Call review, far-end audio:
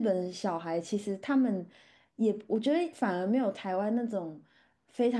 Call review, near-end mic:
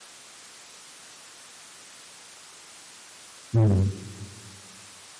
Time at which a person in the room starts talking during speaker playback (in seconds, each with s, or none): 3.5 s